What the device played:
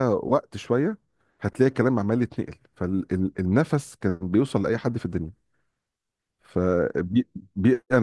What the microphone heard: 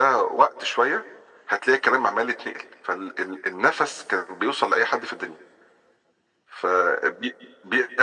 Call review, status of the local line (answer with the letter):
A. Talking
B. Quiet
B